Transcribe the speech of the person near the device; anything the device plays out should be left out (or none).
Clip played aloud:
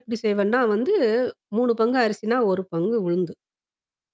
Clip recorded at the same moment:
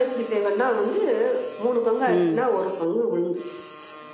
ம்.